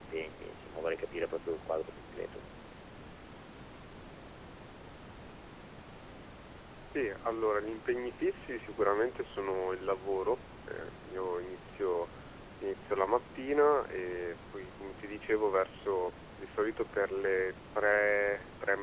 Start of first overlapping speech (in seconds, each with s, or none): none